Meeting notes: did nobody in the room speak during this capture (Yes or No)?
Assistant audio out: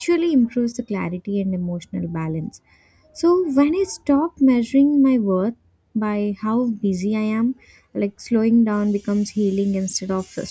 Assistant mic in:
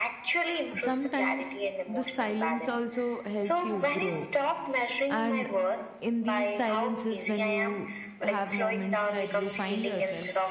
No